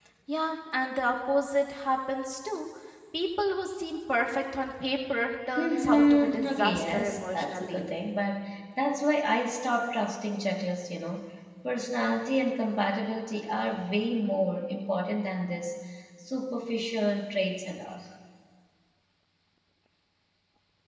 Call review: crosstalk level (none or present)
present